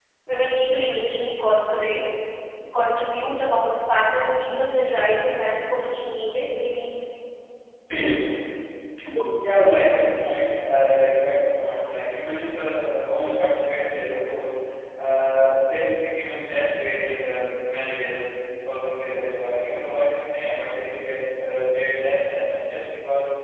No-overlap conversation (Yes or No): Yes